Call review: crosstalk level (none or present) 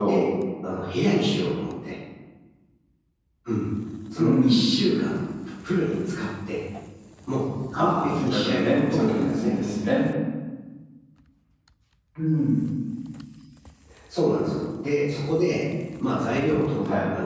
present